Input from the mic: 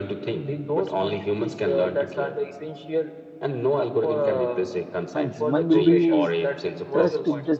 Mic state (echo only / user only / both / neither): both